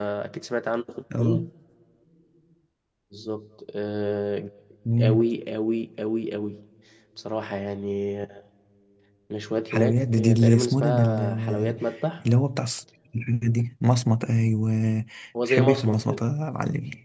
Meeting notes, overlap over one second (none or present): present